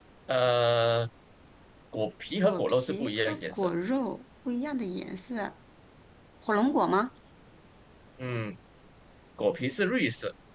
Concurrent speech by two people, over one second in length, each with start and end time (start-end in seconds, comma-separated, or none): 2.4-3.7